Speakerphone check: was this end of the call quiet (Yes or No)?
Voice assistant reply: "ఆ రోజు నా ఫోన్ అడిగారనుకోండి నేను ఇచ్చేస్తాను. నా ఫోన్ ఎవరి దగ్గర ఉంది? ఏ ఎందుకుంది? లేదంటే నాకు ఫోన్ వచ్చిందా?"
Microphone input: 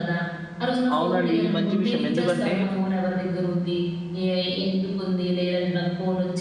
No